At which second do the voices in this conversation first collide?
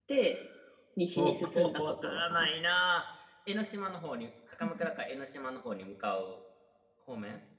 1 s

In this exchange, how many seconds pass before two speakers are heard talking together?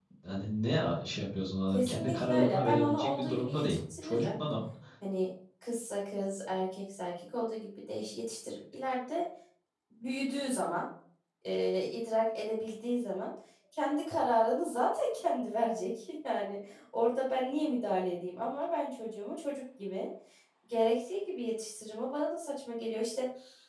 2 s

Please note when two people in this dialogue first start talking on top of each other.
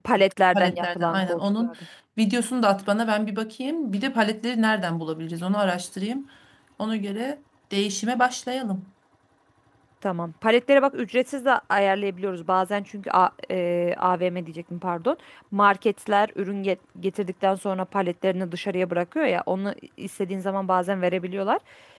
1 s

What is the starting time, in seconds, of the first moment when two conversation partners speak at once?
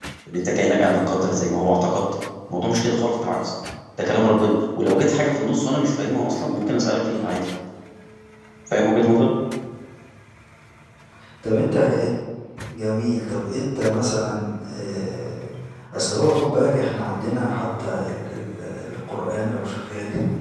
none

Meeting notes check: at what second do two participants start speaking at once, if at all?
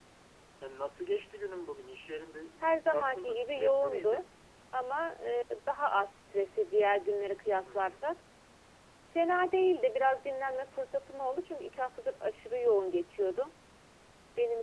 3 s

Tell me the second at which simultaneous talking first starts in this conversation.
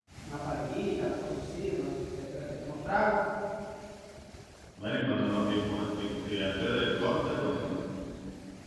none

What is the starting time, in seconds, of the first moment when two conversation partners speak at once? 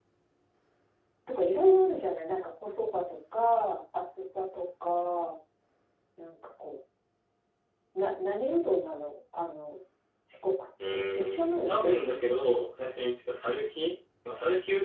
11 s

